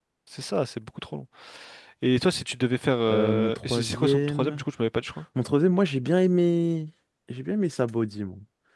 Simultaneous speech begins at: 3.1 s

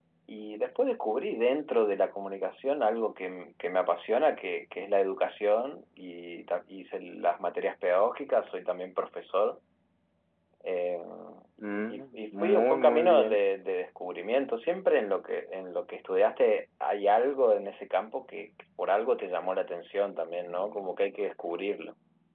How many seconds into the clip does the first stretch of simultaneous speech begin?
11.9 s

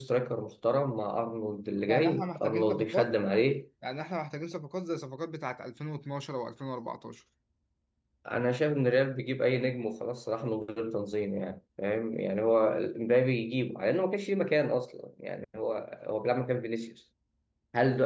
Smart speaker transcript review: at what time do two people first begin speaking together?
1.9 s

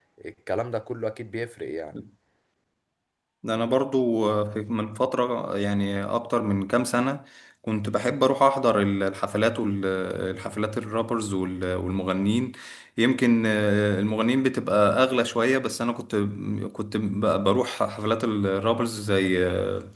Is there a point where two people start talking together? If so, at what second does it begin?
none

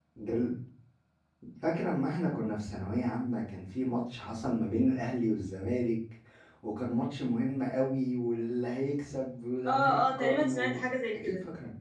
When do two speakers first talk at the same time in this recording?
9.7 s

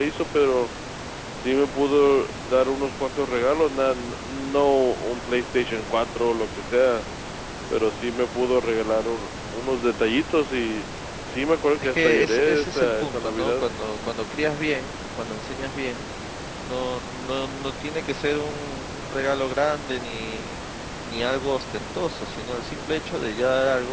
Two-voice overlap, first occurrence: 11.8 s

